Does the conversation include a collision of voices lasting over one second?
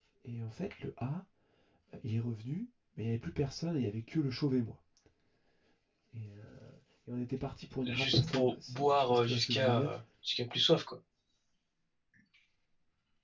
Yes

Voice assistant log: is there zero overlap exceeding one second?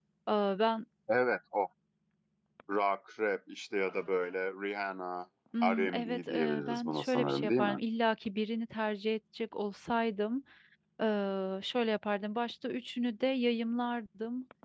No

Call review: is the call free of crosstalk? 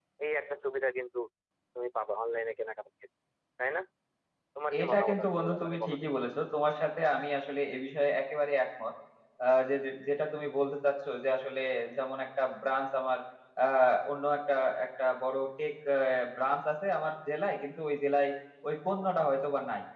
No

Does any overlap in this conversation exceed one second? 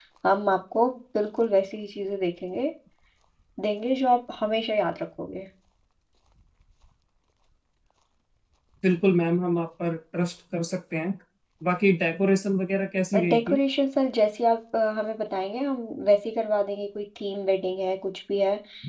No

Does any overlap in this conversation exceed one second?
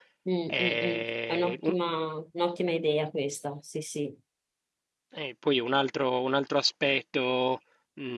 Yes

